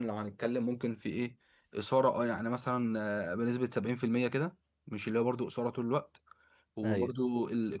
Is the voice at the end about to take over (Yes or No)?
No